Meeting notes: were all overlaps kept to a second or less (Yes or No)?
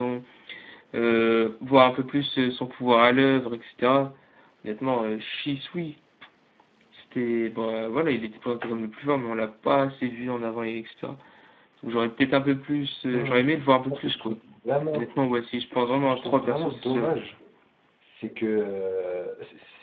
No